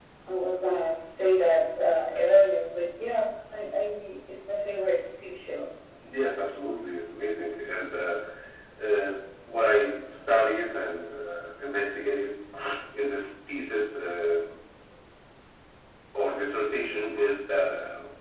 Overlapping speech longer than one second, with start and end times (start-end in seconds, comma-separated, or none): none